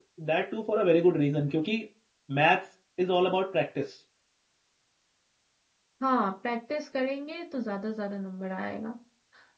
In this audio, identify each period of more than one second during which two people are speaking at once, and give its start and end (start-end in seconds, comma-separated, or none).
none